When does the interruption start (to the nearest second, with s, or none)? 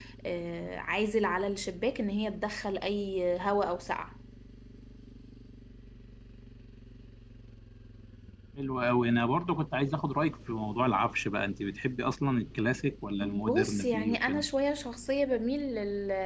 13 s